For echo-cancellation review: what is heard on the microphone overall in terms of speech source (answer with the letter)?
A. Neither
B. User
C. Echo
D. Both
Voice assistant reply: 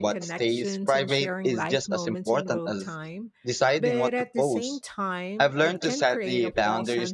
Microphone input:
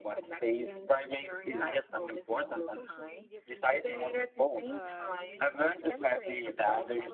D